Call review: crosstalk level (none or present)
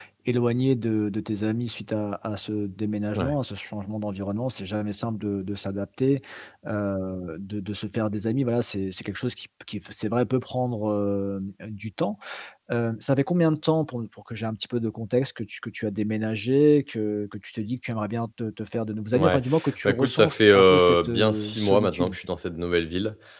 present